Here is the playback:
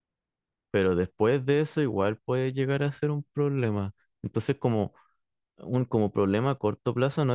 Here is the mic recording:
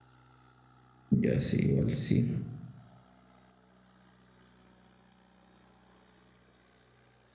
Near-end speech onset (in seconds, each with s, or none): 1.1 s